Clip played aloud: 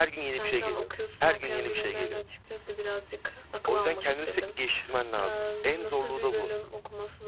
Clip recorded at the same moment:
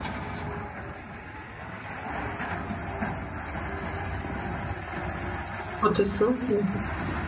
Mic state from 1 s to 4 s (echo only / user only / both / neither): neither